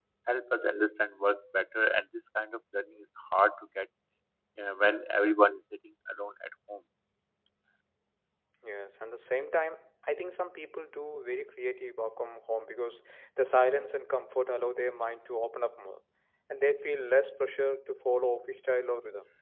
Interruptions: none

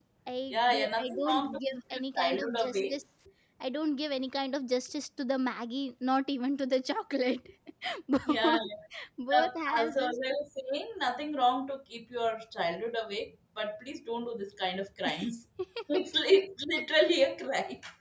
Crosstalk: present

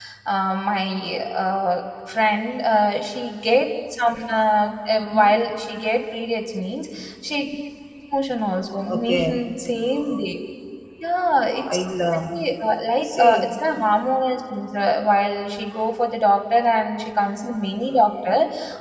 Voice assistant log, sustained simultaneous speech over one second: none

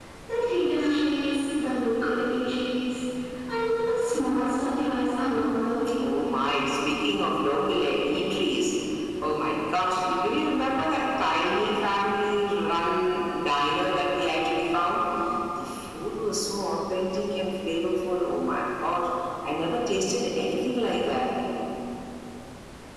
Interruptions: none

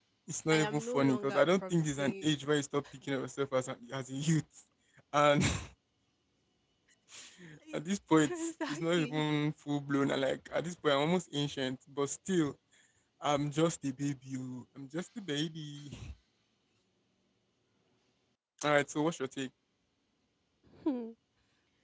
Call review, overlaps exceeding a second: present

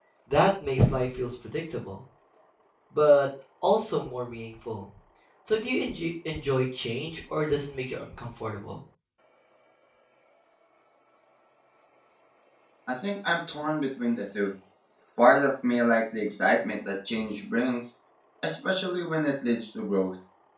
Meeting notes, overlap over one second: none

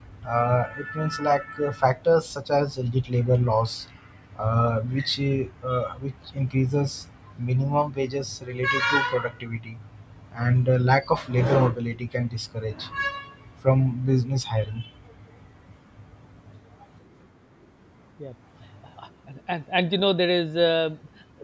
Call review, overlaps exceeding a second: none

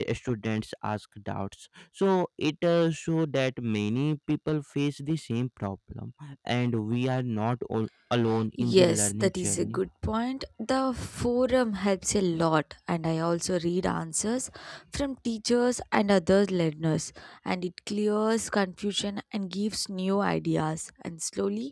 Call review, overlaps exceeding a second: present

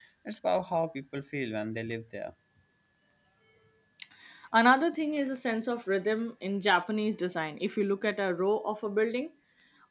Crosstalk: none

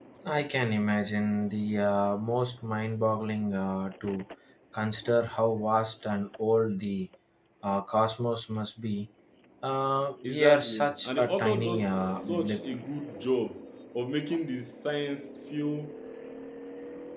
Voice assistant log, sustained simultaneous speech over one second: present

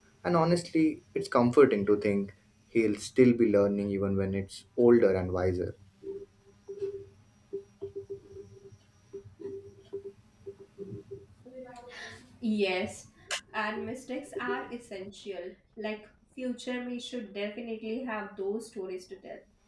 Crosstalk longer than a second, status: none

